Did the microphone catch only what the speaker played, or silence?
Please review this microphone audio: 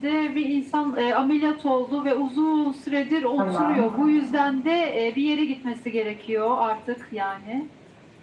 No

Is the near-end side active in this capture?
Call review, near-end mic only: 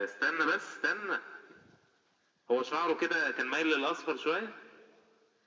No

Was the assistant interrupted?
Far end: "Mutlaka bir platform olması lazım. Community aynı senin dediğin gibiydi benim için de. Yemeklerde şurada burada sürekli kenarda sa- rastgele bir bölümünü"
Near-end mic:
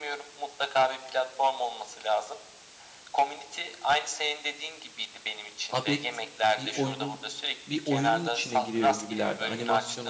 Yes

